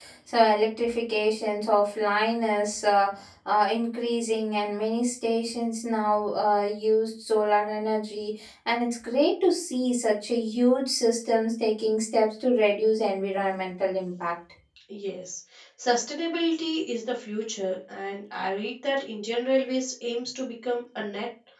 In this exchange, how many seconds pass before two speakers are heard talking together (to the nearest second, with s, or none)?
none